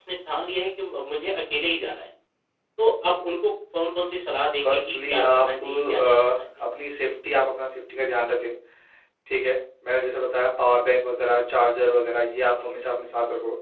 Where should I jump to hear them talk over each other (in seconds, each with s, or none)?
4.6 s